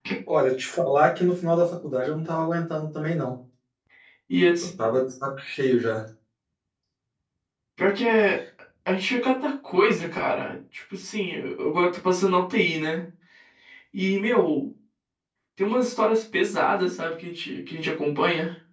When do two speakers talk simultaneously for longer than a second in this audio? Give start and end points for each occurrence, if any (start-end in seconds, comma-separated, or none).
none